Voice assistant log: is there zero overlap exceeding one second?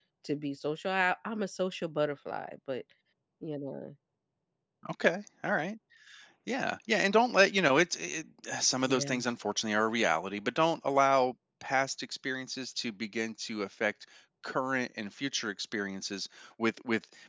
Yes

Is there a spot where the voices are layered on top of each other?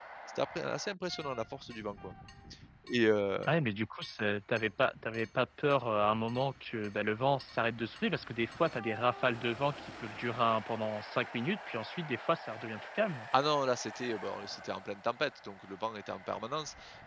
No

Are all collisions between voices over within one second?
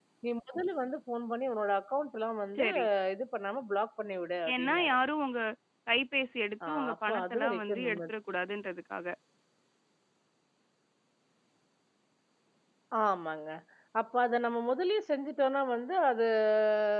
No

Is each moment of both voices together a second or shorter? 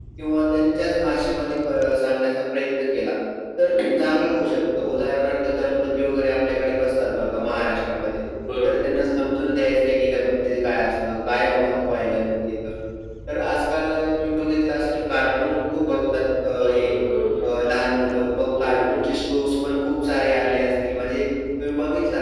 Yes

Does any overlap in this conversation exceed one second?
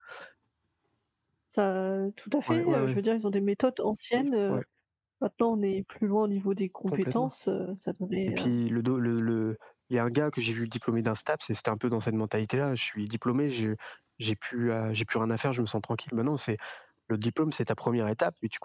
No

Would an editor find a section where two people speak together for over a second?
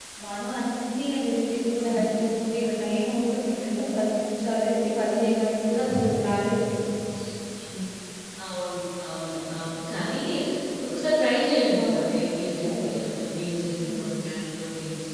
No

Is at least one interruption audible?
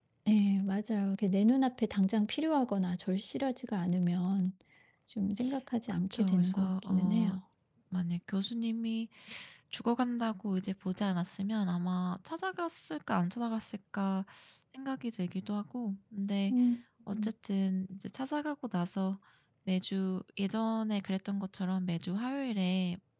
Yes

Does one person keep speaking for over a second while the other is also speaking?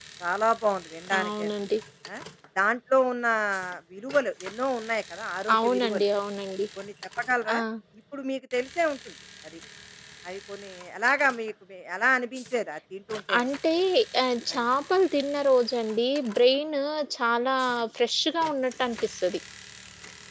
No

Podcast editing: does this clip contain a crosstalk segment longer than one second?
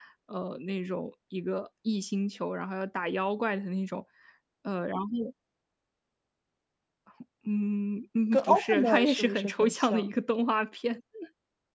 Yes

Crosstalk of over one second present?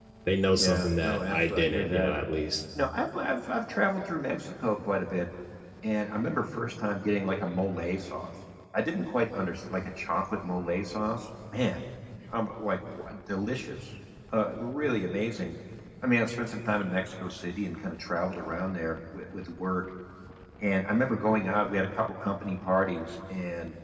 Yes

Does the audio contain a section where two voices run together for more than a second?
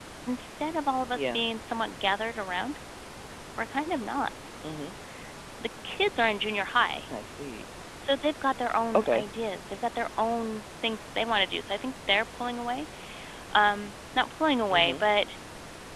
No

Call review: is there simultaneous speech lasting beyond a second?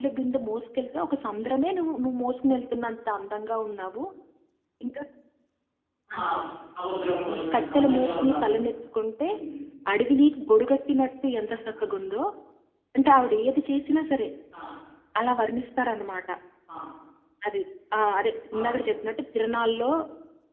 Yes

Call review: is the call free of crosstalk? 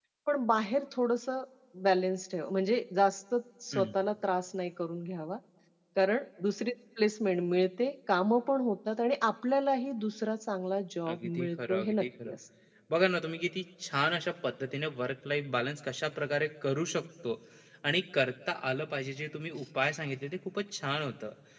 No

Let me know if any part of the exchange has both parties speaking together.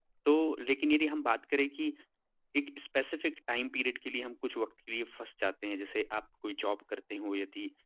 No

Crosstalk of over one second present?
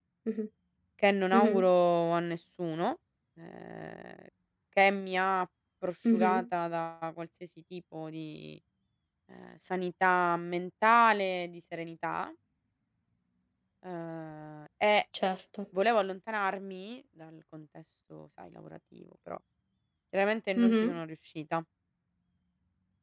No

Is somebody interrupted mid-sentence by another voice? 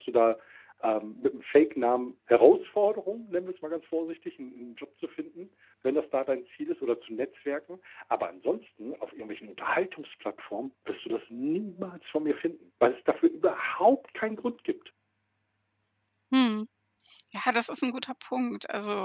No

